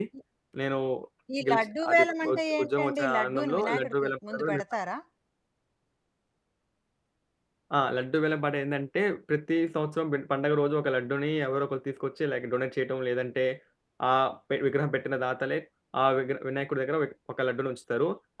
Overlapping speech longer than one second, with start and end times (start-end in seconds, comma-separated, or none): 1.5-4.6